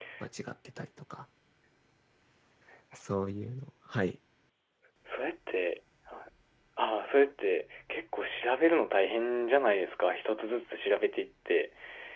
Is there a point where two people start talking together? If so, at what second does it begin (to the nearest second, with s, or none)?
none